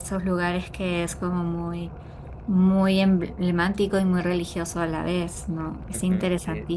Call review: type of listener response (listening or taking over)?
taking over